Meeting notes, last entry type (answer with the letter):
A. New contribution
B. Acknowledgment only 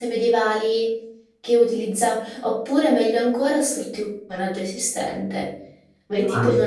B